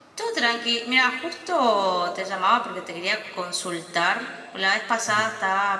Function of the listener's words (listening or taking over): listening